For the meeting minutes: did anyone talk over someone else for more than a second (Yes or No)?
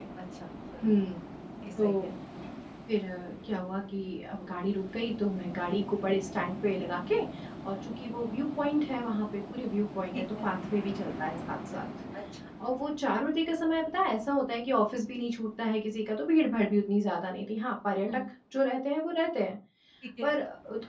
No